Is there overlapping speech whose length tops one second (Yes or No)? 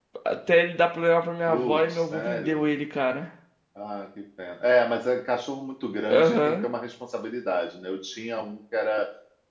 Yes